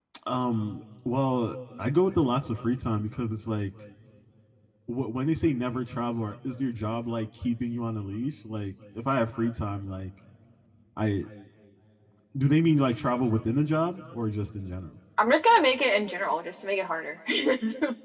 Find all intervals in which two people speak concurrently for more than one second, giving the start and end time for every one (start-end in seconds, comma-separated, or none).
none